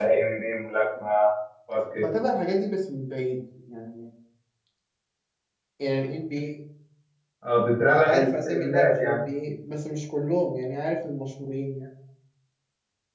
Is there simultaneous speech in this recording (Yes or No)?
Yes